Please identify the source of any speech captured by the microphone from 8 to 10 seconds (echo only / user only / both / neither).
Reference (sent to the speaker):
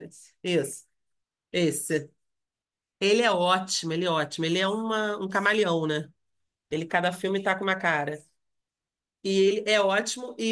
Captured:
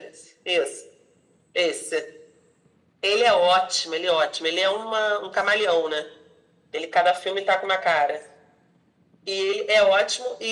echo only